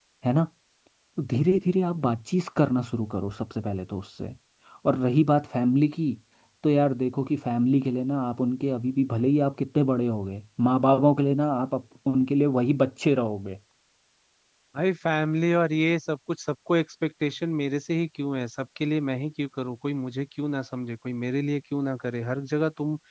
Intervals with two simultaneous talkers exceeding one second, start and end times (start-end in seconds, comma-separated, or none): none